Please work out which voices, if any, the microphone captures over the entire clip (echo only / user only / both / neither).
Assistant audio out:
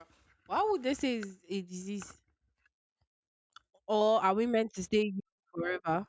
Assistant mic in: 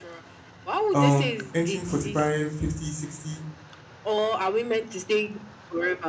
both